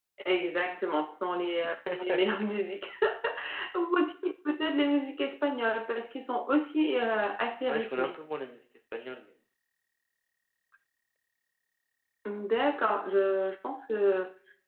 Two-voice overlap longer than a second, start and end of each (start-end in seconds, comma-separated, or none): none